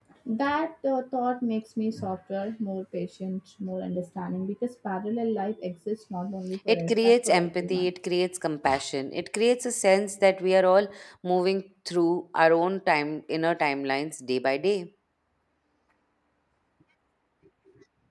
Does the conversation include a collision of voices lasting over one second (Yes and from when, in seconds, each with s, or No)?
Yes, from 6.7 s